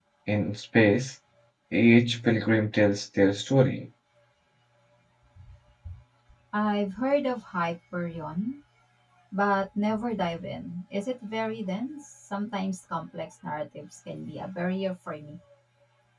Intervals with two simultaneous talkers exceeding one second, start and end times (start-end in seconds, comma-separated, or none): none